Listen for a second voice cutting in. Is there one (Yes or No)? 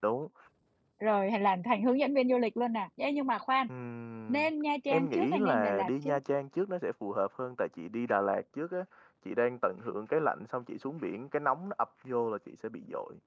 Yes